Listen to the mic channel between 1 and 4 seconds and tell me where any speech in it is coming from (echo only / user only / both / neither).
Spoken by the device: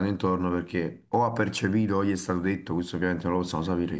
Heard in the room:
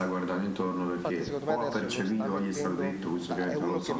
both